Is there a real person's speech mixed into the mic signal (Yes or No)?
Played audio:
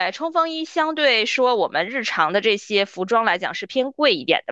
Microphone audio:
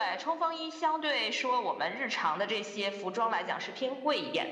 No